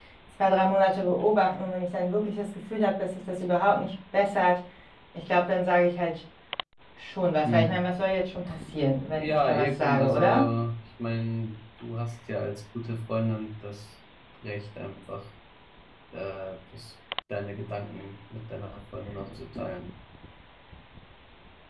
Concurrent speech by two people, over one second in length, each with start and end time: 9.2-10.5

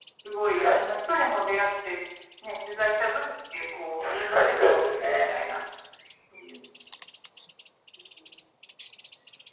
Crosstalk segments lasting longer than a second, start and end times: 4.0-5.3

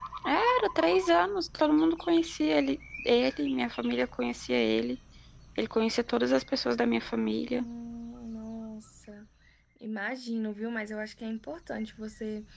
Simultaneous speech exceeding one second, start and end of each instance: none

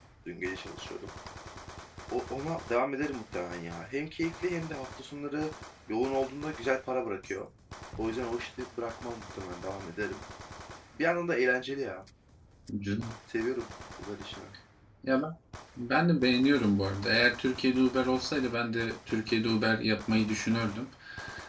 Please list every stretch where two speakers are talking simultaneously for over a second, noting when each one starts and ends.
none

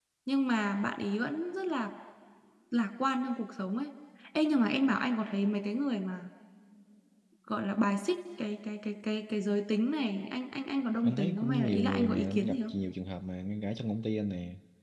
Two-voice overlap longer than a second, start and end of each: 11.0-12.7

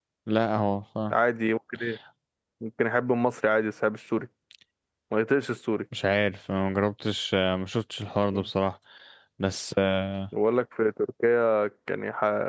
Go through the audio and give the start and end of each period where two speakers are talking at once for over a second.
none

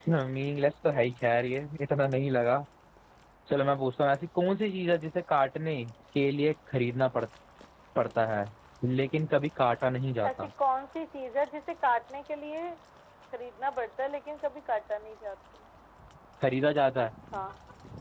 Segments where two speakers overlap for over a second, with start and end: none

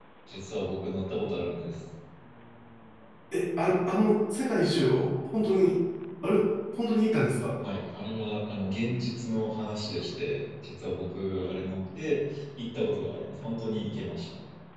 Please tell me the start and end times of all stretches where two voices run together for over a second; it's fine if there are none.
none

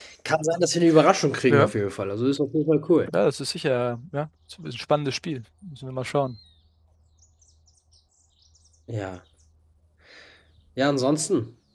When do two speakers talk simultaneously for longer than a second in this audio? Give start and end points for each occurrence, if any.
none

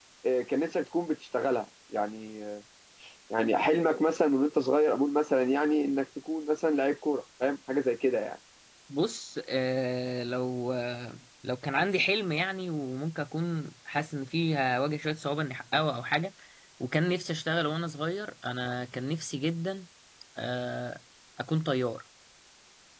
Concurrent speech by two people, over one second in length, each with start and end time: none

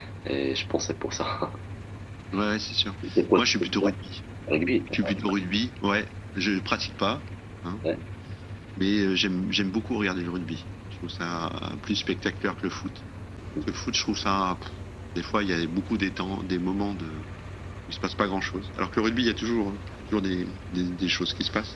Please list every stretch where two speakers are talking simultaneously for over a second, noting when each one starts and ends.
none

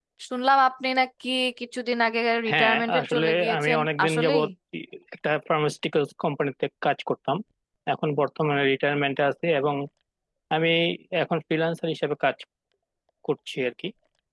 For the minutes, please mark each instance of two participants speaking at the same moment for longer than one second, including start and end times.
2.5-4.4

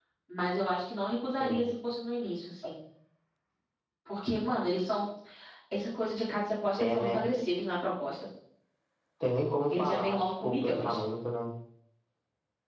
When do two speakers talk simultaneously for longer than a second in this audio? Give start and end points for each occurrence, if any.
9.7-11.0

